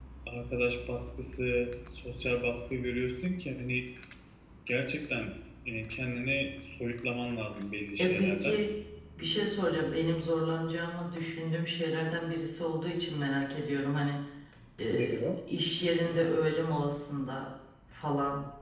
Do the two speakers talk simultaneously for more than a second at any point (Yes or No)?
No